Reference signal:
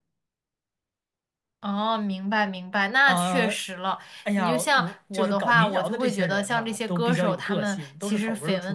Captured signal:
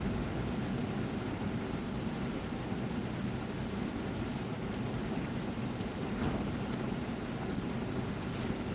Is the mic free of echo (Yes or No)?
Yes